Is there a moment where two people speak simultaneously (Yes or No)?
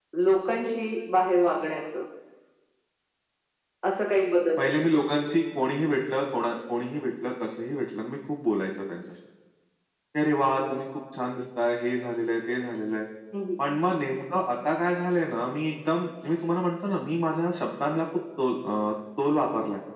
No